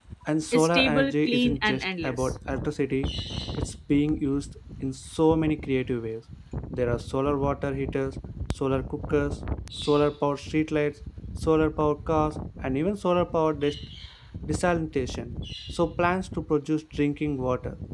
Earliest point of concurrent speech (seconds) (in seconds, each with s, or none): 0.5 s